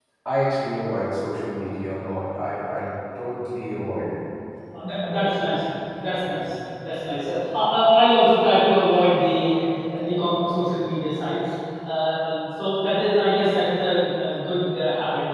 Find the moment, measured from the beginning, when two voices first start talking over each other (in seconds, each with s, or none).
none